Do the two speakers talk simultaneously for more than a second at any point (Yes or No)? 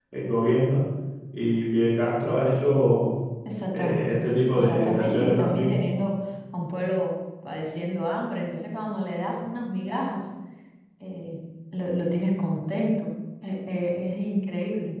Yes